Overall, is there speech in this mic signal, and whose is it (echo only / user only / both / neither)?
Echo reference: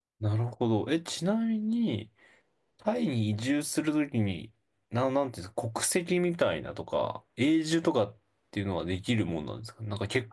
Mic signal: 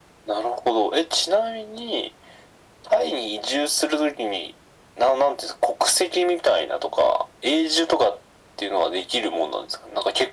echo only